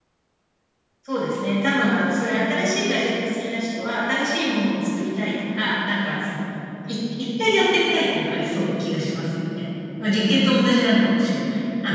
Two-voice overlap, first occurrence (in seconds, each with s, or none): none